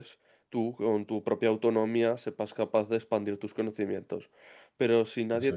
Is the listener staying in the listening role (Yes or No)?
Yes